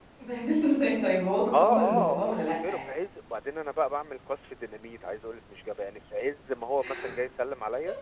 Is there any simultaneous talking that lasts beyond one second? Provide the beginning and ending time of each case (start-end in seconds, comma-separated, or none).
1.5-2.9